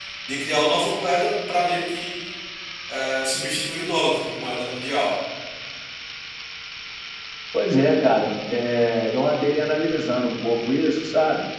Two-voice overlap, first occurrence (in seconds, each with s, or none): none